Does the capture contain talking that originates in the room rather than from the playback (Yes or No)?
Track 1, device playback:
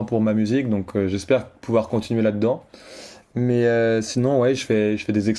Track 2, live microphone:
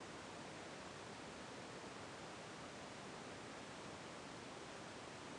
No